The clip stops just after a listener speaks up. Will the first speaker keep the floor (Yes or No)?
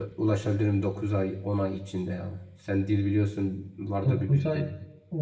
No